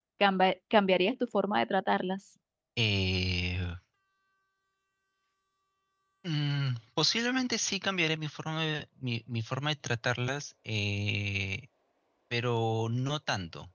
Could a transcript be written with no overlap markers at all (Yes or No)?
Yes